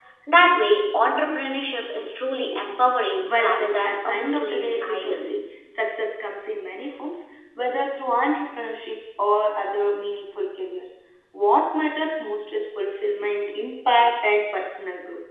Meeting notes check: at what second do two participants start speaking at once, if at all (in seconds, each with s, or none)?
3.2 s